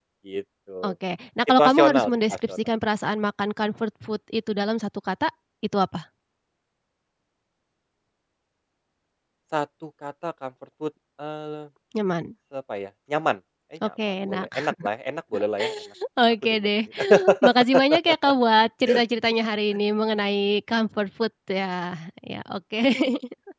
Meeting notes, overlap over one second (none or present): present